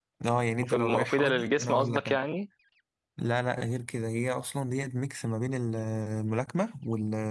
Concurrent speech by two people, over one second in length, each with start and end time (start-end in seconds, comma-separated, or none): 0.6-2.2